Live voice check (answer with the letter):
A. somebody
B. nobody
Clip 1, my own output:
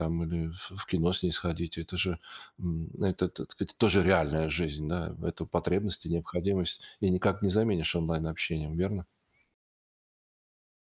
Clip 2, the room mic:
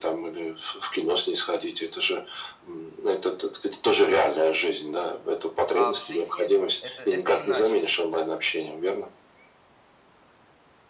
A